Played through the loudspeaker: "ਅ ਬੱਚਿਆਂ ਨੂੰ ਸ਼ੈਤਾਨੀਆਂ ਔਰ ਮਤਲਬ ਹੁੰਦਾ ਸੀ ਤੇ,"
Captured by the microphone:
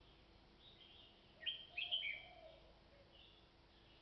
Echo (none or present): none